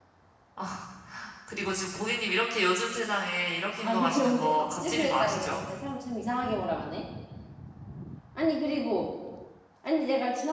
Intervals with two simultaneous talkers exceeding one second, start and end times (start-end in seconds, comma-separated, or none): 3.8-5.5